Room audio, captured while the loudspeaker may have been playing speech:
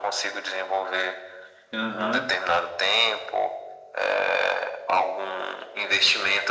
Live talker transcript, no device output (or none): Aham.